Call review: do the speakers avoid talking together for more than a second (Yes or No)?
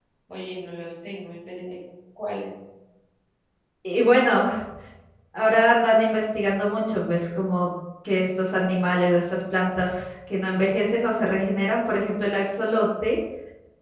Yes